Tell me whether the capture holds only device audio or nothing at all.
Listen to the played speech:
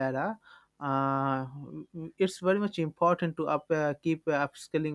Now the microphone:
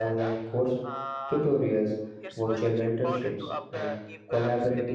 No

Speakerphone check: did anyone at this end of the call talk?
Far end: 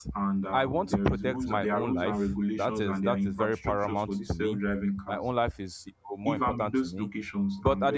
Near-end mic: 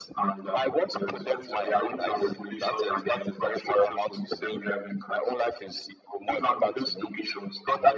No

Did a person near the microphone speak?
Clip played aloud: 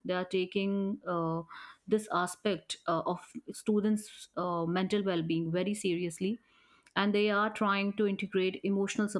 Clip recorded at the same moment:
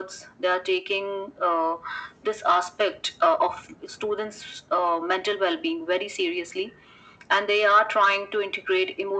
No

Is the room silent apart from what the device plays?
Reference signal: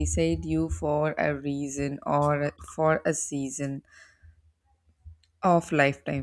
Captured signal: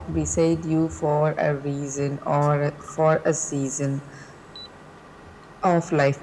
Yes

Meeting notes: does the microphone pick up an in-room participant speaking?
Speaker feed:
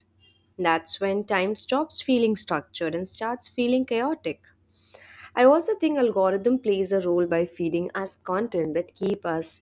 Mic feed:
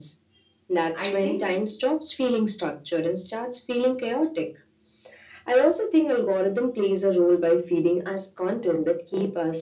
Yes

